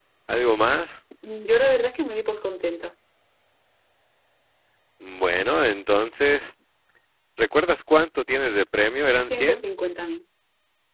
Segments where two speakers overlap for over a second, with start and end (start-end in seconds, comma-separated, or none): none